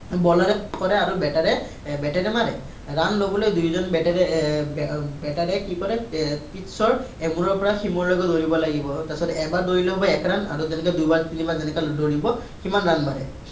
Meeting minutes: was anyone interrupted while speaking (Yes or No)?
No